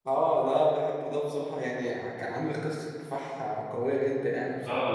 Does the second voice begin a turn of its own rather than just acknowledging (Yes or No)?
Yes